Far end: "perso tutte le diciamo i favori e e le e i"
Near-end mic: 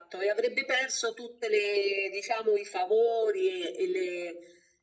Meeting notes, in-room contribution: none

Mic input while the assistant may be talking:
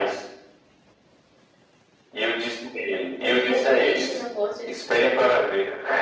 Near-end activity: present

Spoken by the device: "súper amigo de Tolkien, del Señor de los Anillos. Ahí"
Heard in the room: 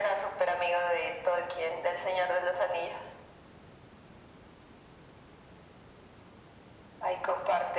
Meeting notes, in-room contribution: none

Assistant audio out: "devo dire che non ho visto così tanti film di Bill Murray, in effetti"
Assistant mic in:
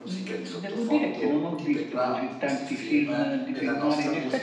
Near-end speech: present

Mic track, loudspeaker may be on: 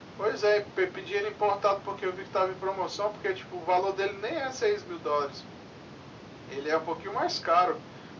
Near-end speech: none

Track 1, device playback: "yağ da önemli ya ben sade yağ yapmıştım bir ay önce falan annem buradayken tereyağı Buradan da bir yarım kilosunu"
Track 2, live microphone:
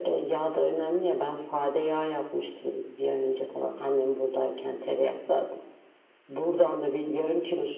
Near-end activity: none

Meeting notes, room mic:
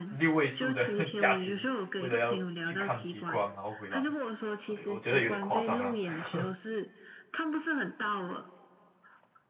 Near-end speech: present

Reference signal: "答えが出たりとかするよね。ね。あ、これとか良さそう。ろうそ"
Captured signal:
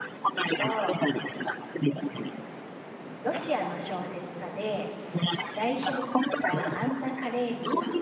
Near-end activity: present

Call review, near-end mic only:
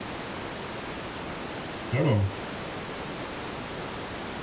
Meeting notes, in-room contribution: present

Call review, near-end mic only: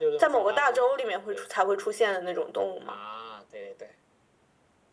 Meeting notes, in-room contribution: none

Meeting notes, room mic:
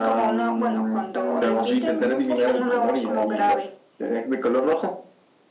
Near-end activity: present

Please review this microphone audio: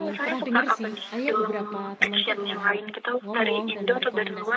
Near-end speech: present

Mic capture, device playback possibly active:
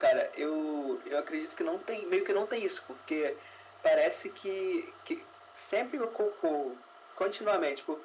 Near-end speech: none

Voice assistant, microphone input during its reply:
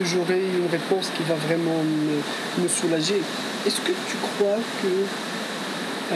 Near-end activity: none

